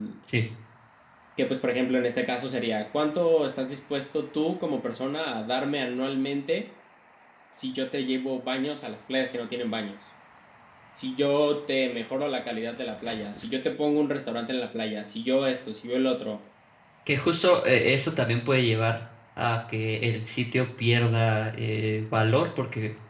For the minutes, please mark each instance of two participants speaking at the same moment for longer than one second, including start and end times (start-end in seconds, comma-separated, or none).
none